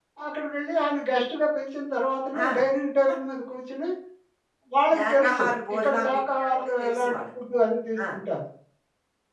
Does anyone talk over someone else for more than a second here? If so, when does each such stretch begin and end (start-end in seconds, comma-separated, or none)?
5.0-7.2